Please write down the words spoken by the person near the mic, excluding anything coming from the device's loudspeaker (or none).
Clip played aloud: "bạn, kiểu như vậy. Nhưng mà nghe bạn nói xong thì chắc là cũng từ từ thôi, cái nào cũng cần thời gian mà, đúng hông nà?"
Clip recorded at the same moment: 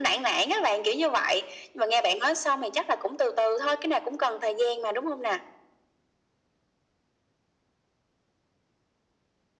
none